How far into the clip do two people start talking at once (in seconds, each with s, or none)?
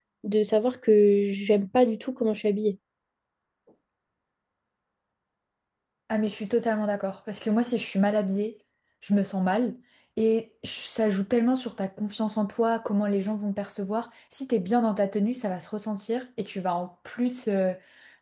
none